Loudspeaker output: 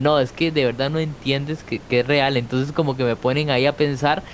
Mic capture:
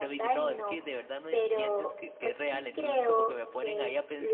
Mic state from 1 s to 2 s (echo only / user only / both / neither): both